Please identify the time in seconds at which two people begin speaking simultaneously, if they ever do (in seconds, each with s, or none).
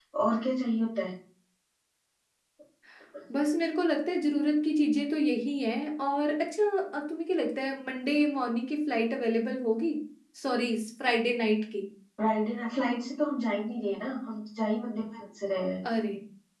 none